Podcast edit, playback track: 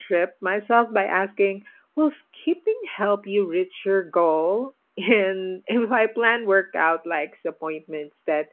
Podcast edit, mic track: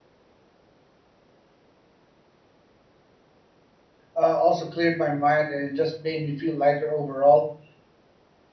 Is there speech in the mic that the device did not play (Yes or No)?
Yes